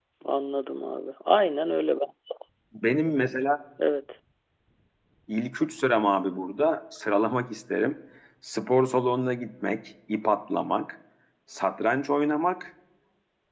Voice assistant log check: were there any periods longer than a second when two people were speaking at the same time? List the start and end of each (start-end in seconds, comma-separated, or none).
none